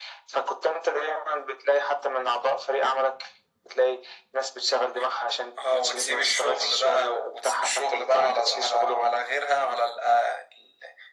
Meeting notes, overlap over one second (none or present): present